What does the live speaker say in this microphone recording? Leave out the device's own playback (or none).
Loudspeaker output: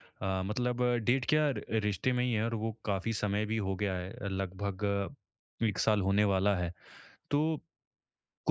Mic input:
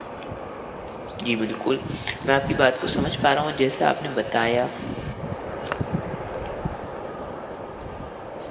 जी, बिल्कुल। मैं आपकी बात को समझ पा रहा हूँ, जैसे आपने बताया